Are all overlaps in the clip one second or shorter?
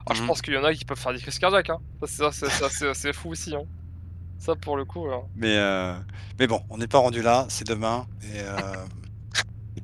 Yes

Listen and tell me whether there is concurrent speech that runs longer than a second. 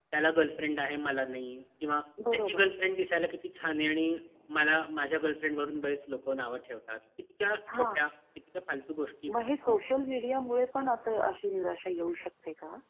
No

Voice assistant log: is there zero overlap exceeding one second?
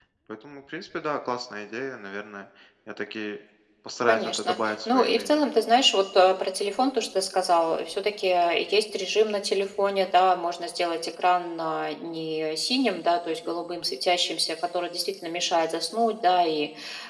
No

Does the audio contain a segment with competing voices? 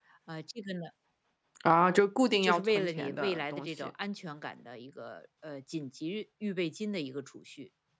Yes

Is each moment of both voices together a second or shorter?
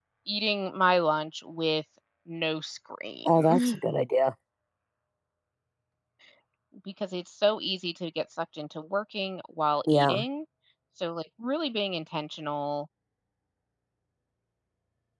Yes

